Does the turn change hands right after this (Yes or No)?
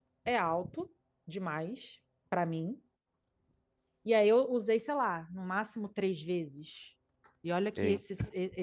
No